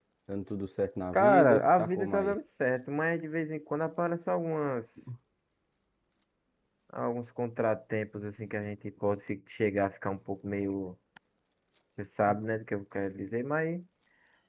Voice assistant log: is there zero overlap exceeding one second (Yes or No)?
No